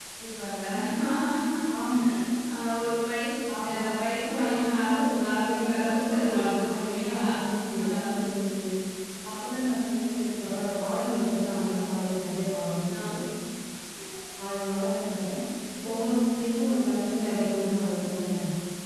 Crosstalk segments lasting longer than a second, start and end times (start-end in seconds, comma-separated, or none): 4.3-7.3